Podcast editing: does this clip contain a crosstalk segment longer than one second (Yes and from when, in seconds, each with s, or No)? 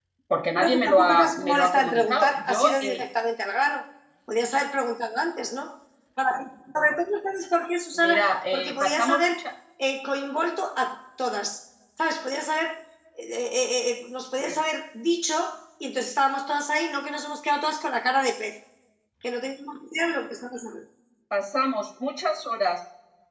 Yes, from 0.6 s